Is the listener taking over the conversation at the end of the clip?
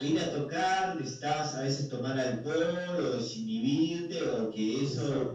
No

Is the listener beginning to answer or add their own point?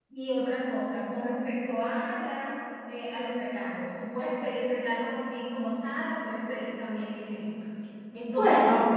No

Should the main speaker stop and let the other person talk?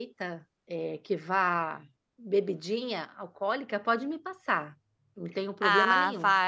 Yes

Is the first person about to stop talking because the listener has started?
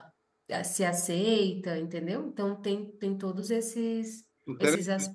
Yes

